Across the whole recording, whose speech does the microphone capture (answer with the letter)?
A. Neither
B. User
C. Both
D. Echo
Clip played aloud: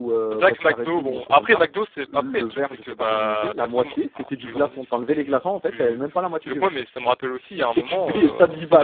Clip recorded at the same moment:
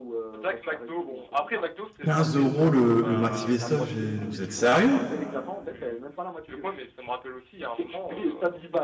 C